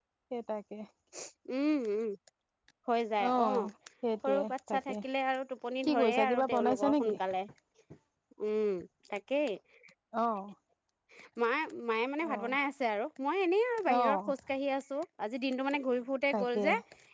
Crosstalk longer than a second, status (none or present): present